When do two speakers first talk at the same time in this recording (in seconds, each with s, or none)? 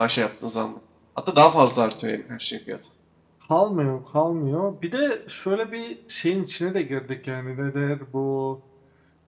none